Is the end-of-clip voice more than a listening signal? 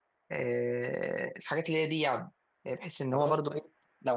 No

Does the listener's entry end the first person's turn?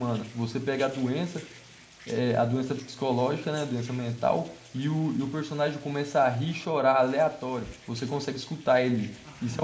Yes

